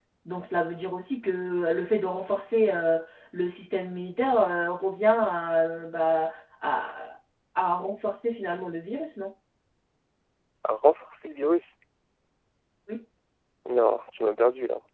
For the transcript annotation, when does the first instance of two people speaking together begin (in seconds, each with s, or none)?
none